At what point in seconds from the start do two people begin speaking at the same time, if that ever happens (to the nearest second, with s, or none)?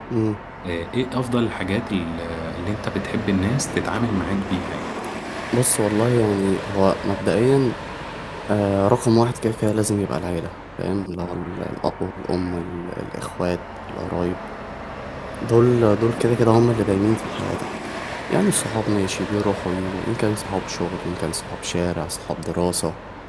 none